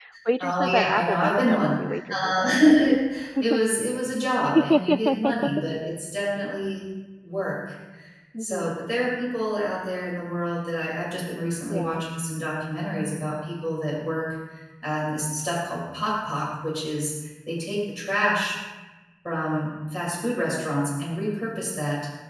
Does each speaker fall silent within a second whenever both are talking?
No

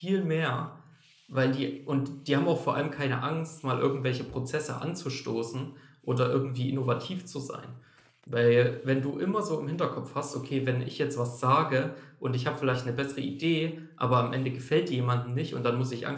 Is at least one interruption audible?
No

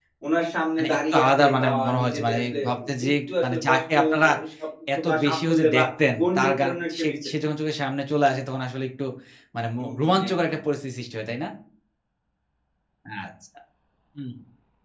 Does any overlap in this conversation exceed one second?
Yes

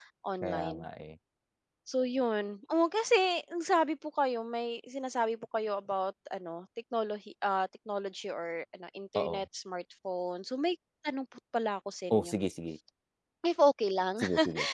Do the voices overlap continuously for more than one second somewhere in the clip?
No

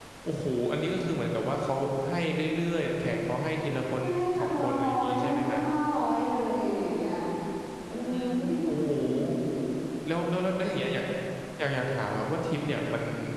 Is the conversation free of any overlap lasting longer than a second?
No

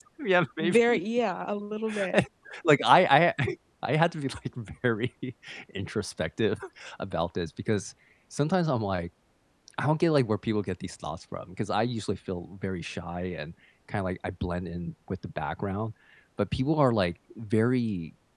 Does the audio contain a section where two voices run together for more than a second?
No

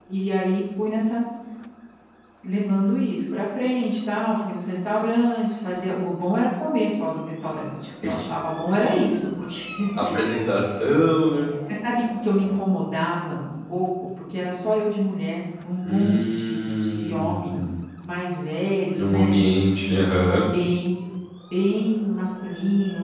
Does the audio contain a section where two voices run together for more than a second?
Yes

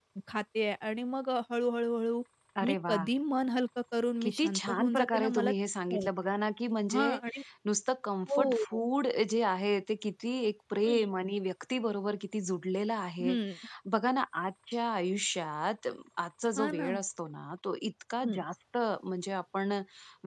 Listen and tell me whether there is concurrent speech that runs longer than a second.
Yes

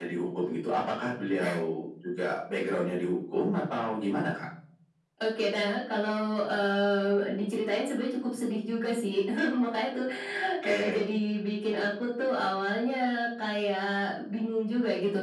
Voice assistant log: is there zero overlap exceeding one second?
Yes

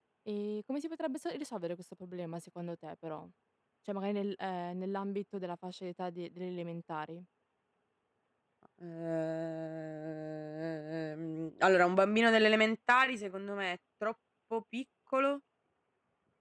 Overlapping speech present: No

